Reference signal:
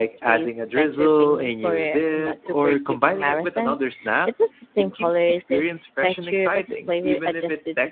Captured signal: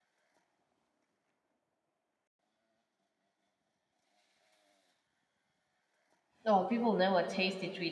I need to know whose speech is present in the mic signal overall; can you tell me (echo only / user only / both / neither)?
user only